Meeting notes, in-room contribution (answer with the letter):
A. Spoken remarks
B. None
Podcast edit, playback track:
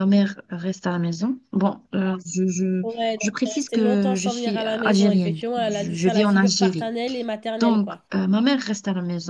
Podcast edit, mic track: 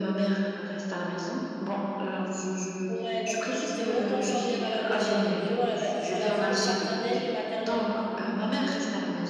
B